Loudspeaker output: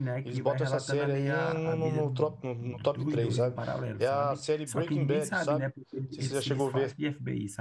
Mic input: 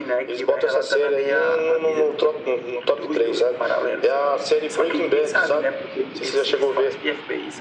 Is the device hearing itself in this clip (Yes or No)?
Yes